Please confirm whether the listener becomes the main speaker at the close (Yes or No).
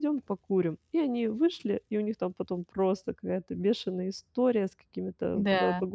No